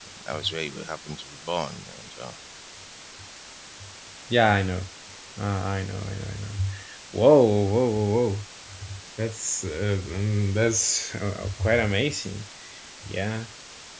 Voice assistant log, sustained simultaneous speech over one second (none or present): none